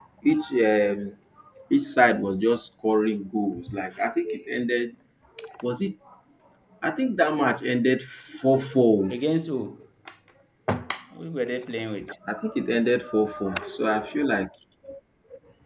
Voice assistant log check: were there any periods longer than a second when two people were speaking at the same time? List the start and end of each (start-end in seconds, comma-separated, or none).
none